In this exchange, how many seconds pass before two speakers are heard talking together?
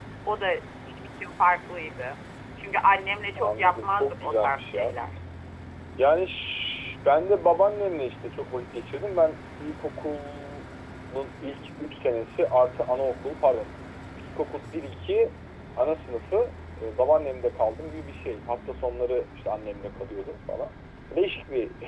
3.4 s

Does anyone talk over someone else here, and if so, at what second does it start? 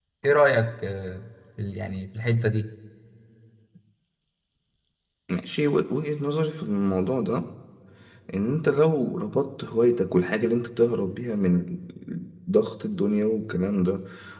none

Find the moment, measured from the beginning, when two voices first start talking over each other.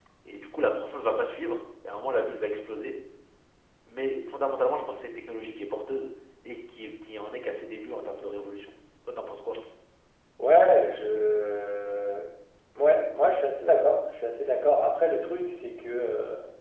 none

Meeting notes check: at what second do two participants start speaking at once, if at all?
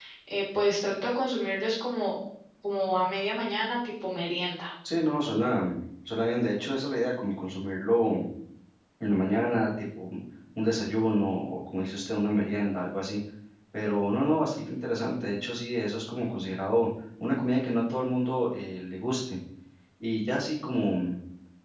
none

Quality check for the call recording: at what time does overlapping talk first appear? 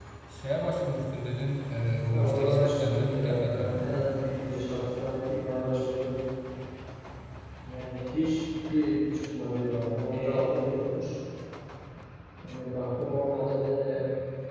2.1 s

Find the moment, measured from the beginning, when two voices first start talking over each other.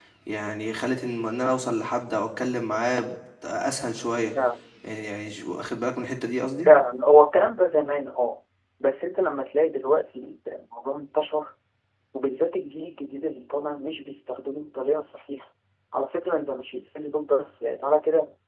none

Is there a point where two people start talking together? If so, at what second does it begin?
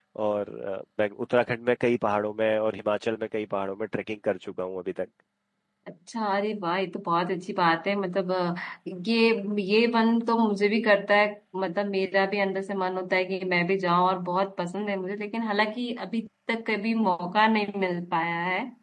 none

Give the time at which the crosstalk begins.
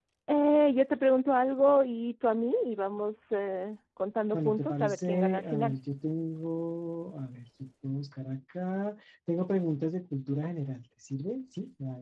4.3 s

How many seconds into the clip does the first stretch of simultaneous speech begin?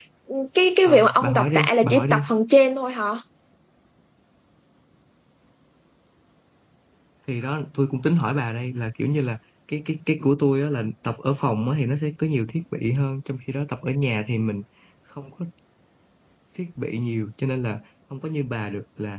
0.8 s

